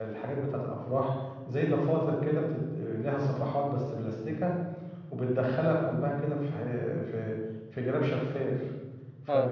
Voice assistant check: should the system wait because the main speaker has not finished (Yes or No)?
No